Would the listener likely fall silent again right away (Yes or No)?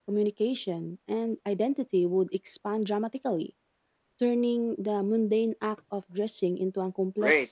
No